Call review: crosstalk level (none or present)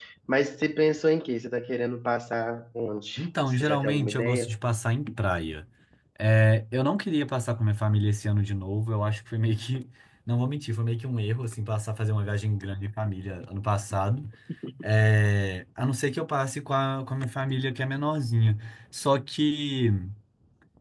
present